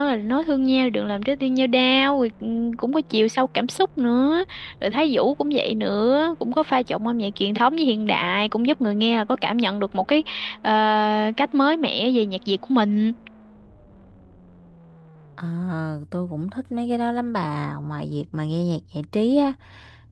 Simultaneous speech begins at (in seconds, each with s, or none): none